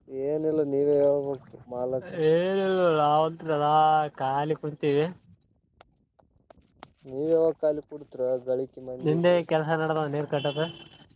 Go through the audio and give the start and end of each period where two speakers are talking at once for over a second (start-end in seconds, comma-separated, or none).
none